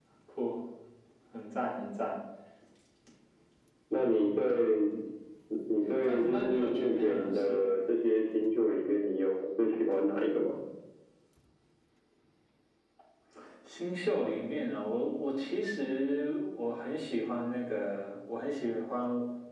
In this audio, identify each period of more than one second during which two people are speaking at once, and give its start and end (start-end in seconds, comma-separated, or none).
6.0-7.7